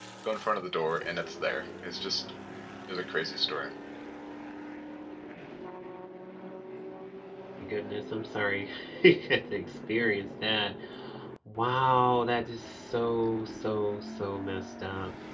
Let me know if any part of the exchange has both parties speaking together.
No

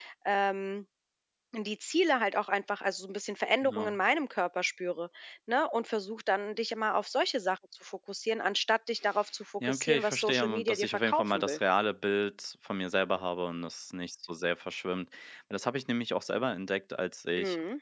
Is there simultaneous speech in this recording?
Yes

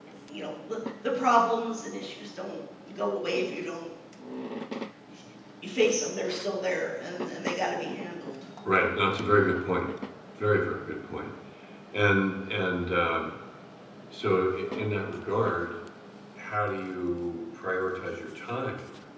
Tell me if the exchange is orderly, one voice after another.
Yes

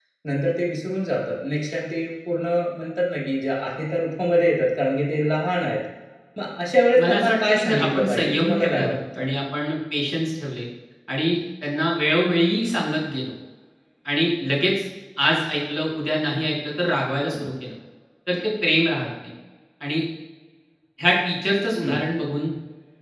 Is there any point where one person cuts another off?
Yes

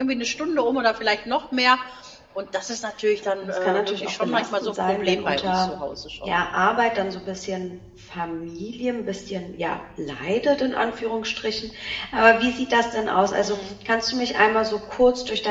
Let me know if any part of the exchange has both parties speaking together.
Yes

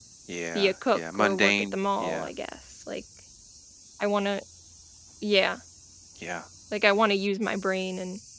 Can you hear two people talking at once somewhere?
Yes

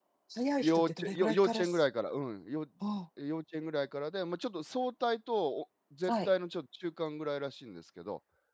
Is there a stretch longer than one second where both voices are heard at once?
Yes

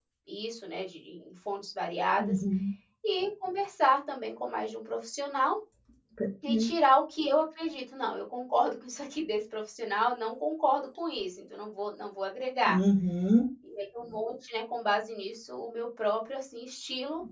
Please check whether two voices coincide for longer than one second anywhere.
No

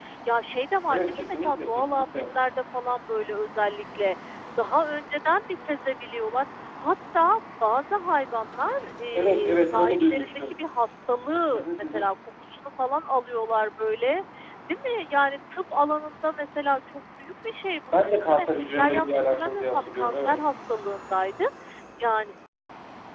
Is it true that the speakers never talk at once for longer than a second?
No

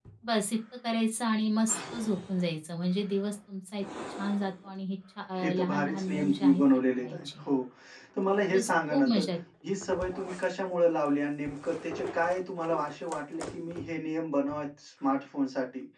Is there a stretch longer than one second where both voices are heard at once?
Yes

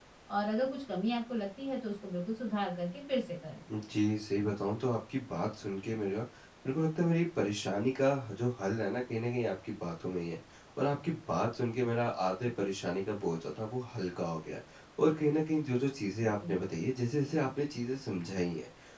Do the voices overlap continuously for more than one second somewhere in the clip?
No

